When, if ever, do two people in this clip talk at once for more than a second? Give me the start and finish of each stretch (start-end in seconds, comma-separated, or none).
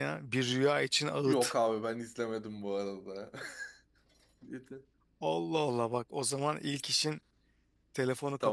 none